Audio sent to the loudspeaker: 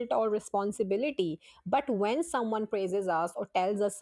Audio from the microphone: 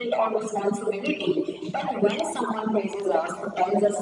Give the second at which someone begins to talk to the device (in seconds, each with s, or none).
none